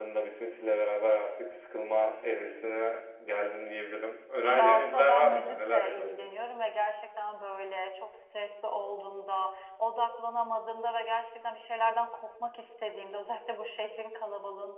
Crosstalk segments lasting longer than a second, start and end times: 4.5-6.3

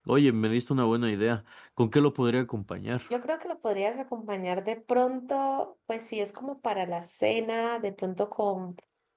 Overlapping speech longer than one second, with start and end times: none

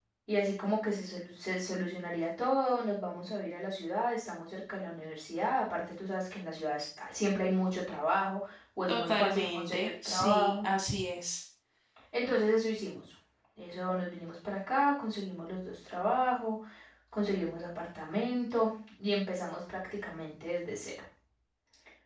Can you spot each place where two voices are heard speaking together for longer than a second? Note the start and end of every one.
8.9-10.7

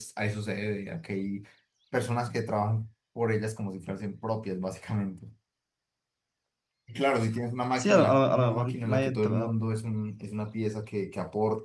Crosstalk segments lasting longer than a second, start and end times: 7.8-9.5

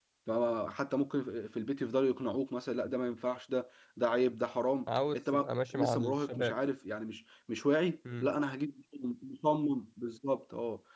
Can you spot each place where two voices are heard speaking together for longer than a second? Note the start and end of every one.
5.1-6.6

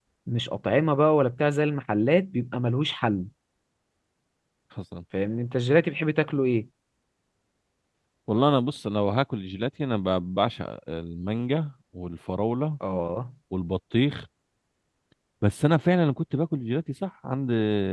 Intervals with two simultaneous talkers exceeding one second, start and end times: none

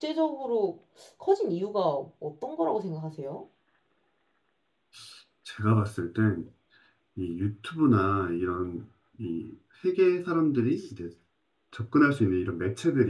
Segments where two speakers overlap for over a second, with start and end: none

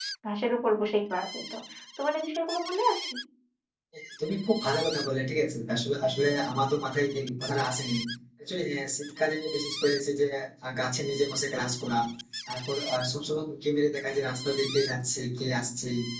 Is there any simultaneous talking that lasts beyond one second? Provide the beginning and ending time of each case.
none

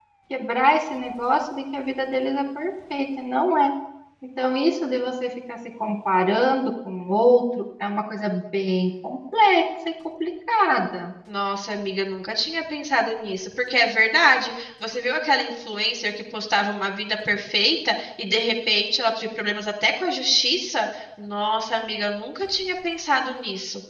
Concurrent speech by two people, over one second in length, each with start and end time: none

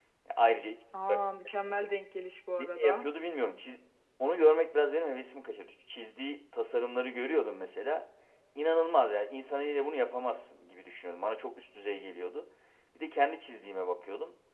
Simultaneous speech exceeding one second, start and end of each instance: none

